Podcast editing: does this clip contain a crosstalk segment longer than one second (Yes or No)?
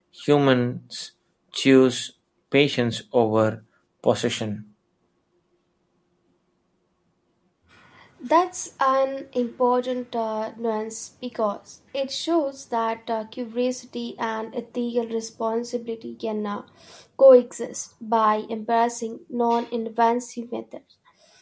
No